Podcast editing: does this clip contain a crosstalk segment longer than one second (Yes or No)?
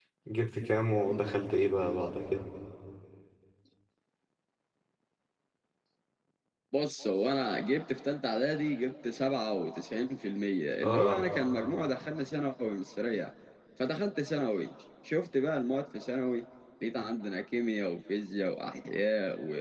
No